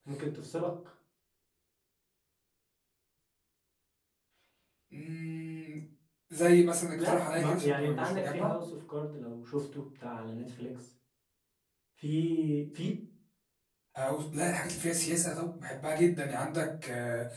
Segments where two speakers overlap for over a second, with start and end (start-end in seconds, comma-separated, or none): 6.9-8.5